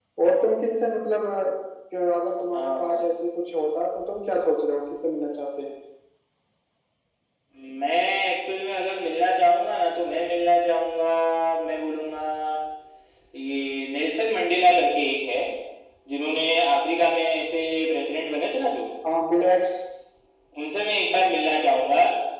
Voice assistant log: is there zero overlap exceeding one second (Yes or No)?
Yes